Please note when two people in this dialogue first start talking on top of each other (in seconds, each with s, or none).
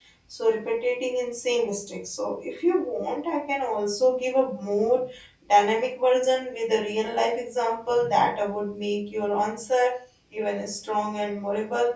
none